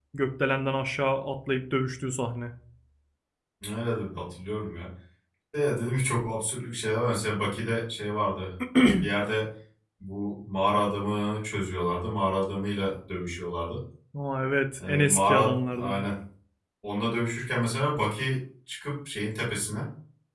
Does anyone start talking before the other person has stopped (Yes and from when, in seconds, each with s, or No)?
Yes, from 14.8 s